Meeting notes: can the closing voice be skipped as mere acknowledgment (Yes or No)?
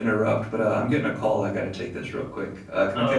No